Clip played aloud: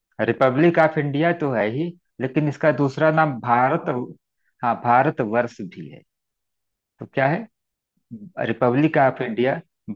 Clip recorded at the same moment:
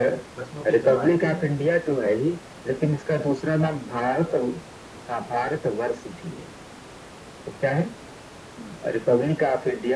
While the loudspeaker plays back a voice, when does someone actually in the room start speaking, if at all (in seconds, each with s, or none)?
0.4 s